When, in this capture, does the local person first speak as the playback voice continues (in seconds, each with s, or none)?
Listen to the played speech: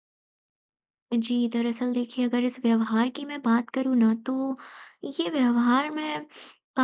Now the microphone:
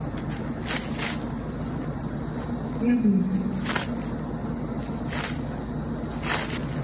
2.8 s